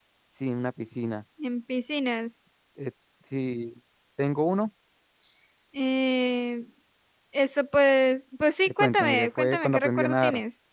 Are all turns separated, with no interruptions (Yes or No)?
No